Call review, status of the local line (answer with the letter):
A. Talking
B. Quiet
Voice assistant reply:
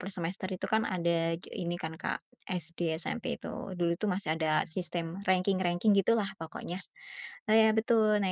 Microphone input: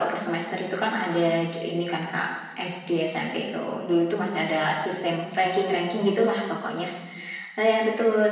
B